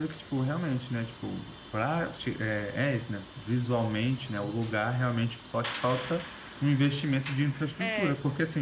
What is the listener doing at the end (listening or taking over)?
listening